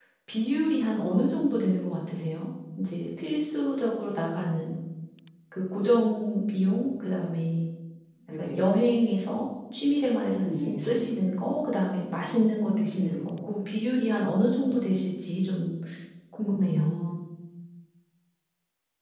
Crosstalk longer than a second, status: none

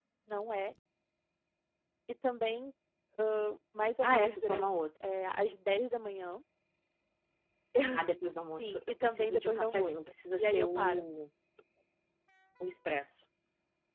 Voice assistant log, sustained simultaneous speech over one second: present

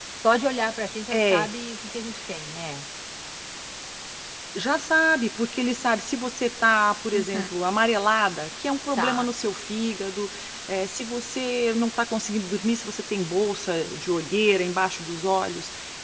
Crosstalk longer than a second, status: none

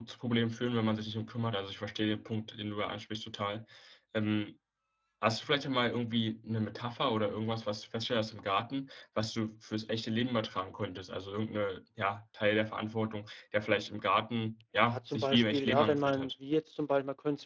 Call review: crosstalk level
present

